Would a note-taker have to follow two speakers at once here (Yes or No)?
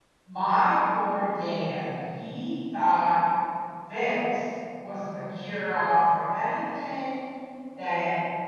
No